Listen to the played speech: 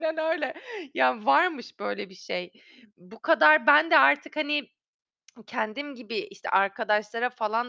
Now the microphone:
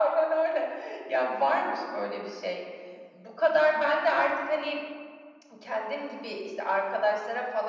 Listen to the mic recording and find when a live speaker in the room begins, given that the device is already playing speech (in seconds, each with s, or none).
none